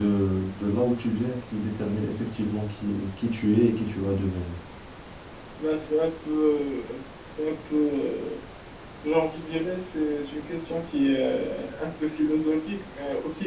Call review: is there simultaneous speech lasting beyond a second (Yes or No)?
No